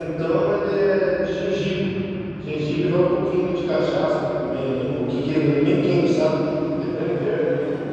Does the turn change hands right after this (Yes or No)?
No